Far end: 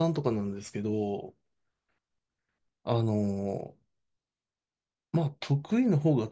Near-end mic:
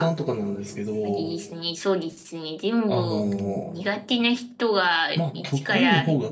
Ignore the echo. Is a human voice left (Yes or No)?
Yes